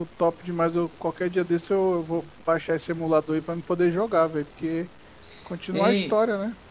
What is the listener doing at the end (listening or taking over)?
taking over